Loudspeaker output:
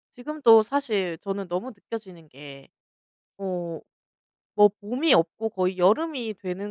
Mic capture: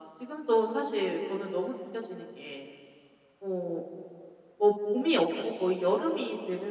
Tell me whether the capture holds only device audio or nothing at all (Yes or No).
Yes